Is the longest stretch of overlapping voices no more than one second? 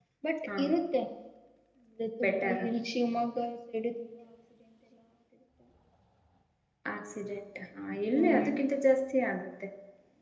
Yes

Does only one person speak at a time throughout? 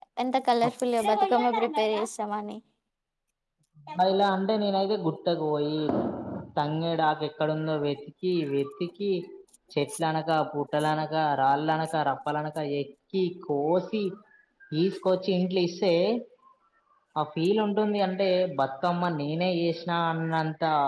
Yes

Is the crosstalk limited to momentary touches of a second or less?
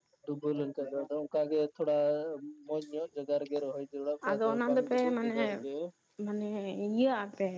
No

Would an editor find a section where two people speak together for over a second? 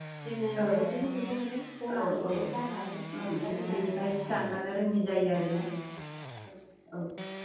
Yes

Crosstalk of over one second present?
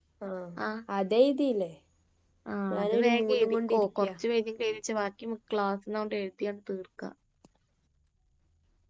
Yes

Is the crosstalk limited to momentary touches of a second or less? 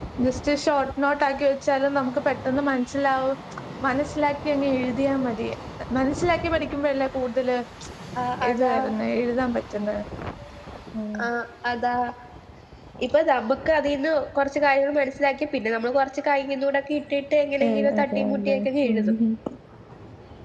No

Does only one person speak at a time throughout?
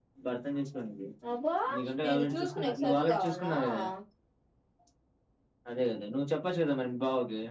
No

